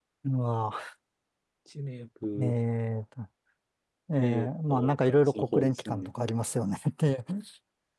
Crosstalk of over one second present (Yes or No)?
Yes